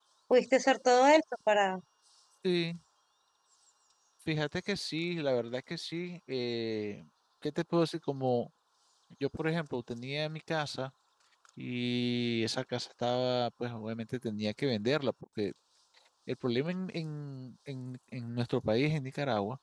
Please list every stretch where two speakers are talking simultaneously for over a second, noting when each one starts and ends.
none

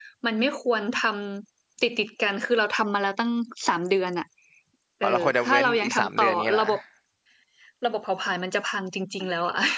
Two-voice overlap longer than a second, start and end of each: 5.0-6.6

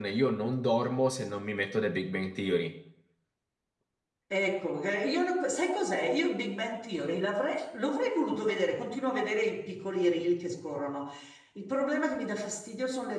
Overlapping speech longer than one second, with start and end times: none

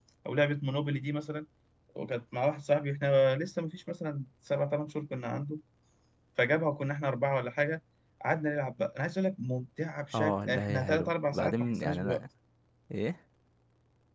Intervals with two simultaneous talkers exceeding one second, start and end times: 10.1-12.2

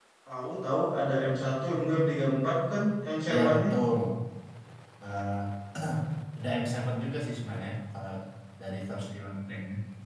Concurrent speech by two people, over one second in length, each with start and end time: none

